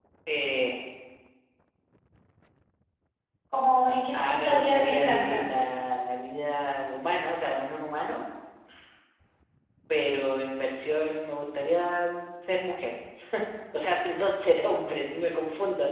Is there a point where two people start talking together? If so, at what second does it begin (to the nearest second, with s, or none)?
4 s